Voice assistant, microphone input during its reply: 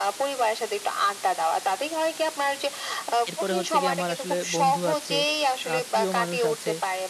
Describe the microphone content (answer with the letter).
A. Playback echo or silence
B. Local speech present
B